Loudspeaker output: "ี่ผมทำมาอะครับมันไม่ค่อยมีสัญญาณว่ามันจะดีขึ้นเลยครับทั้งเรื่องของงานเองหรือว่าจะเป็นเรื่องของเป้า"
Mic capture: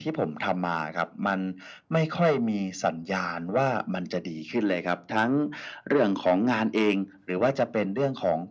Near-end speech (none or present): none